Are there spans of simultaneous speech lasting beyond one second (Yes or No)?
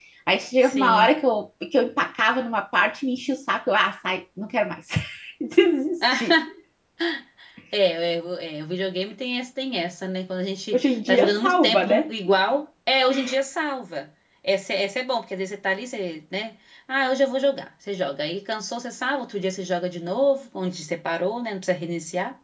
Yes